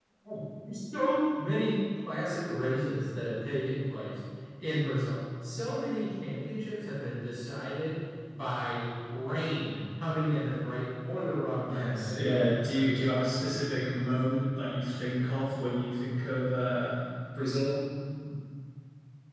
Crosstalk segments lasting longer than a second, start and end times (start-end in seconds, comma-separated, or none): 11.7-13.0